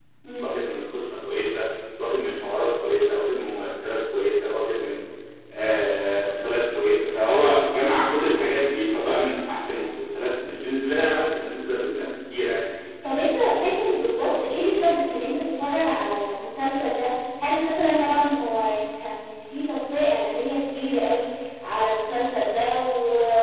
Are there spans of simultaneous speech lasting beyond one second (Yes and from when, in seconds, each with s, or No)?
No